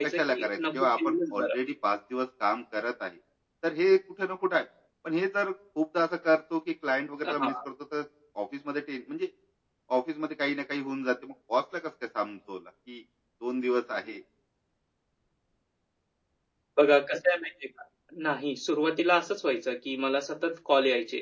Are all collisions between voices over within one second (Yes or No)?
No